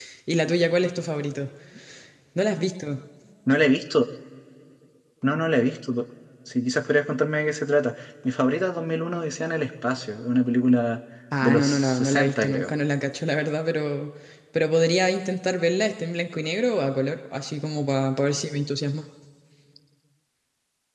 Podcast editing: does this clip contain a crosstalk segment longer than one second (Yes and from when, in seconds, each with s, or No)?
Yes, from 11.3 s